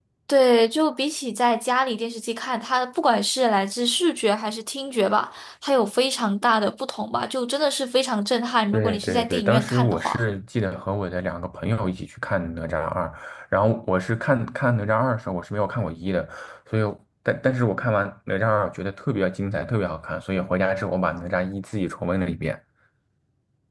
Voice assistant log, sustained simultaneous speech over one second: present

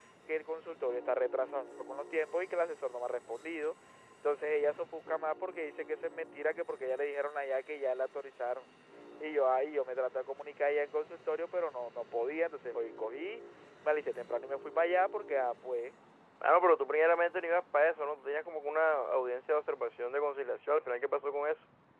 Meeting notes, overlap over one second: none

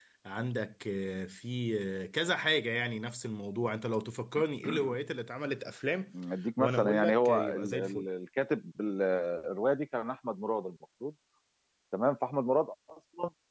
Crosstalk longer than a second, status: present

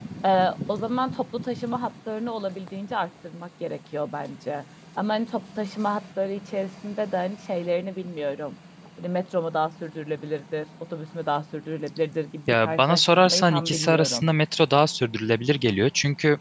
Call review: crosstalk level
present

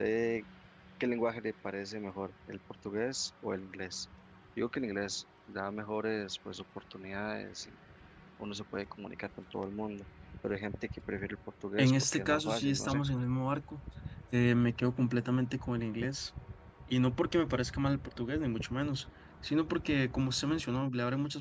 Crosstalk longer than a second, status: present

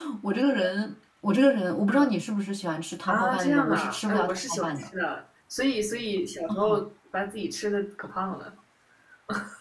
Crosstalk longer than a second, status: present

